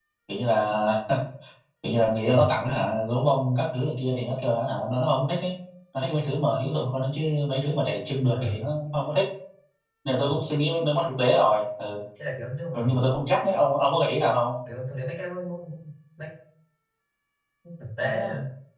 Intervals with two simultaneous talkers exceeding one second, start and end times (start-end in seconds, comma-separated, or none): none